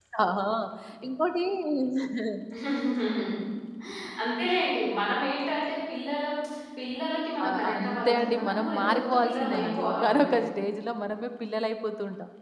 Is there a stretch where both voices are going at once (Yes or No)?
Yes